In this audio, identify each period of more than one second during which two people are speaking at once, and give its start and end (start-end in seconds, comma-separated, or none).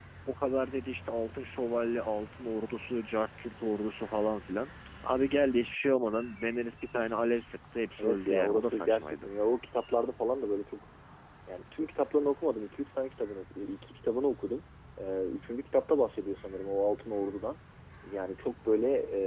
8.0-9.3